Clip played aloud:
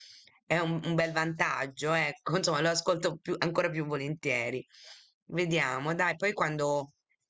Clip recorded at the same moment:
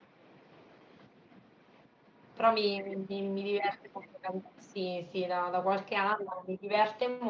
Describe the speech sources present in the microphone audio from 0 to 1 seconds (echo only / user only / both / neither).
neither